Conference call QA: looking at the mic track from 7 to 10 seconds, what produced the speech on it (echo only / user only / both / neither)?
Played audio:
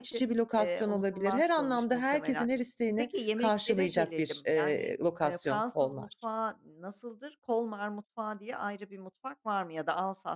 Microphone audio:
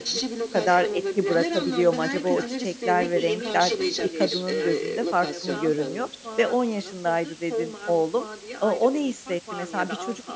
both